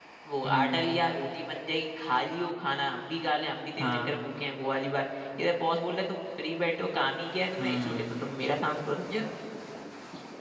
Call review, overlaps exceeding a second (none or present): none